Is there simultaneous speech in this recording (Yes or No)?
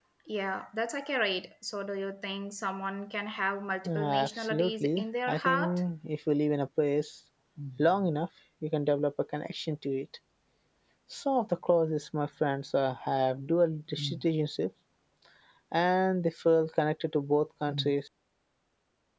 Yes